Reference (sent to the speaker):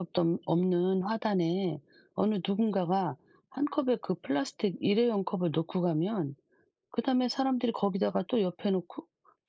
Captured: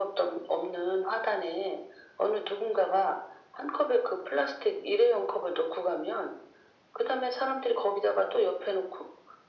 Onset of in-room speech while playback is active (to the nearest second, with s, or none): none